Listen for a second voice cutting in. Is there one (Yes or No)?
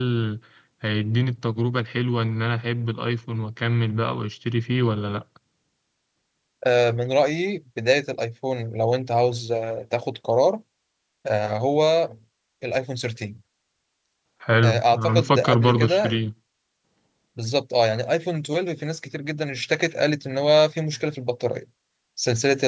Yes